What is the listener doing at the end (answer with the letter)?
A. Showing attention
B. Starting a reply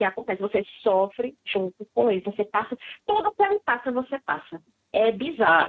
B